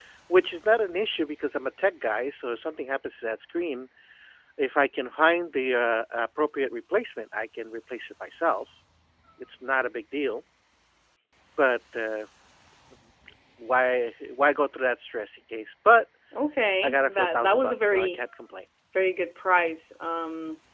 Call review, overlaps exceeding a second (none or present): present